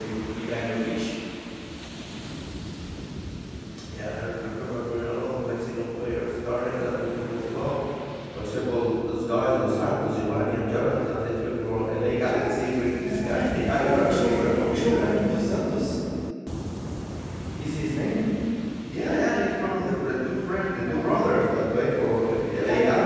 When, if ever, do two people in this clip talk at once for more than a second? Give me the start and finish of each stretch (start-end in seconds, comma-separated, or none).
13.8-15.1